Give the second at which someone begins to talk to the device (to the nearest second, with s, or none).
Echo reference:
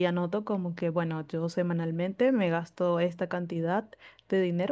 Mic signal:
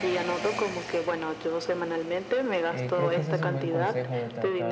3 s